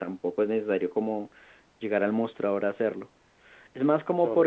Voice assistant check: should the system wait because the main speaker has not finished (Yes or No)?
No